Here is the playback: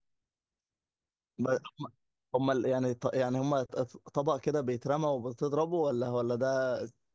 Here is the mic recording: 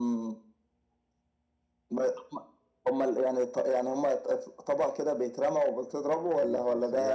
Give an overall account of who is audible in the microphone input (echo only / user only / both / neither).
both